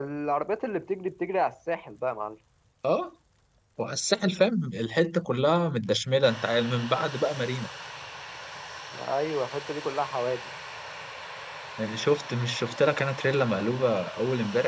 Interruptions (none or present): none